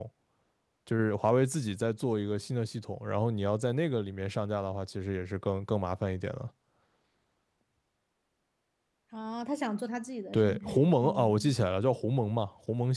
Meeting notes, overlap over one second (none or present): present